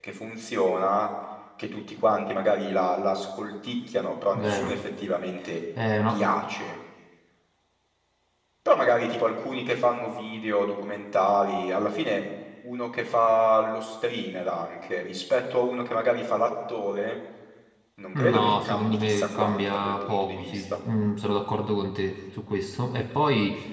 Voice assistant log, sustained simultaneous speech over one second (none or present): present